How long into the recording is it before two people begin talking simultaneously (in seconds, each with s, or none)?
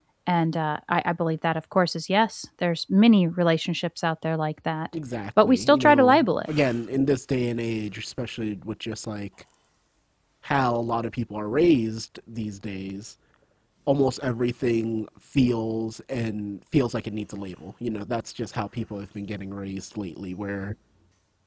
5.4 s